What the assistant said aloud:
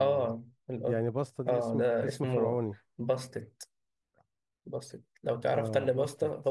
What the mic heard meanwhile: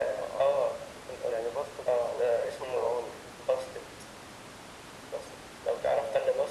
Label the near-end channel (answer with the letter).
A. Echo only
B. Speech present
A